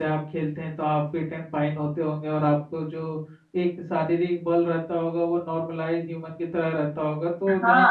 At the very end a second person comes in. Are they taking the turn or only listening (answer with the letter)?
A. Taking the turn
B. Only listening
A